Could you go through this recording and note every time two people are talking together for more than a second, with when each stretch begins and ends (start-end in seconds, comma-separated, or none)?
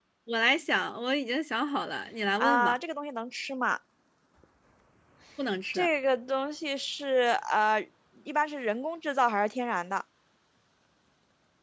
none